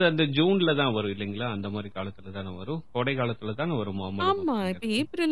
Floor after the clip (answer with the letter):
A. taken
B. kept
A